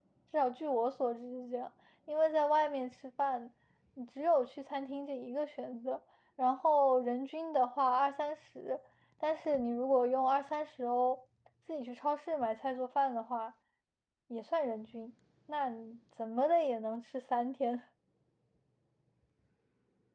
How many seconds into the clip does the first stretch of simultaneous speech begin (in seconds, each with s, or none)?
none